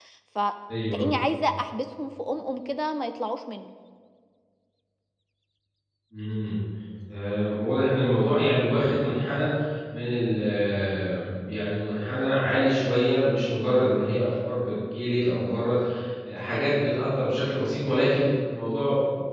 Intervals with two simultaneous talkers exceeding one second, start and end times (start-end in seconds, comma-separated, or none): none